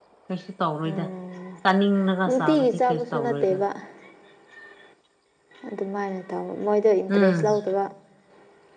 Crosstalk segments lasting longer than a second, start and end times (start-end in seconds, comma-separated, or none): 2.3-3.6